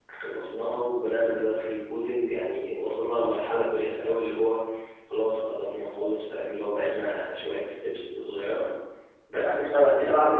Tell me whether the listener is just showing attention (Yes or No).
No